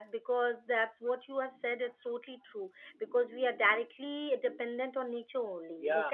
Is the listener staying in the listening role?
Yes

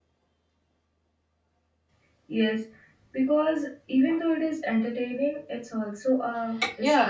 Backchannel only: No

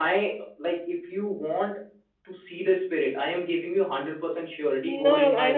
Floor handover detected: Yes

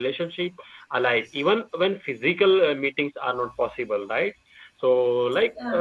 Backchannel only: Yes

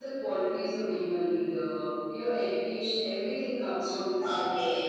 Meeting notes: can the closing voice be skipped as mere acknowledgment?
No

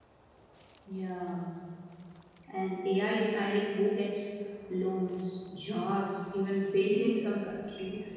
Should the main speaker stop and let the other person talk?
No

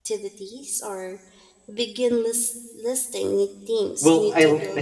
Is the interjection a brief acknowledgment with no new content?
No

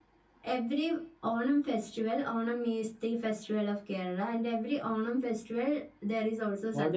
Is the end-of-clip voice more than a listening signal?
Yes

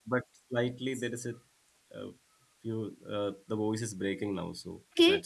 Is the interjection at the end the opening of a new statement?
Yes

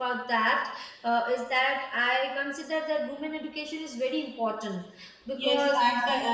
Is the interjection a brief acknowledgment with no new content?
No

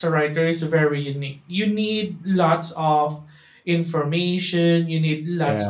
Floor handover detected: No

